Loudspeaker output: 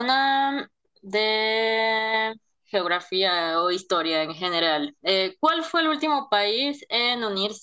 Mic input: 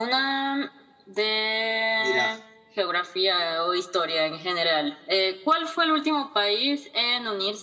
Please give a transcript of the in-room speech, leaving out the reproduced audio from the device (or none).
Mira,